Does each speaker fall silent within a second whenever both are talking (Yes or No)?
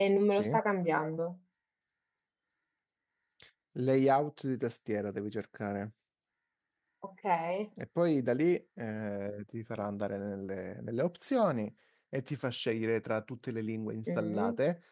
Yes